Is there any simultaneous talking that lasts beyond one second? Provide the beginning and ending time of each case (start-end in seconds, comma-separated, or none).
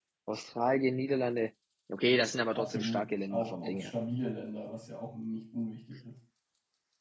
2.5-3.9